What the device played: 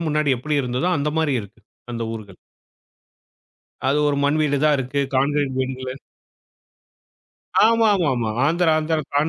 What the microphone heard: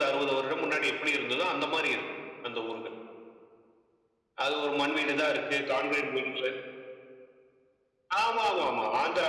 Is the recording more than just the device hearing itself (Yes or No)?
No